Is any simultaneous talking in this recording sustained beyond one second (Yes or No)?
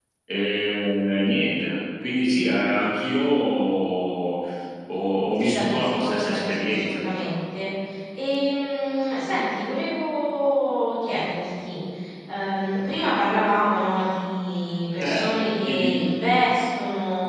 Yes